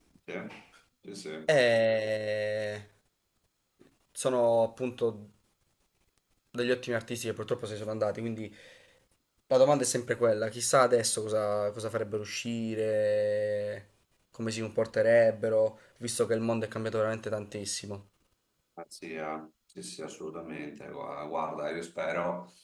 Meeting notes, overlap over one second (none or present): none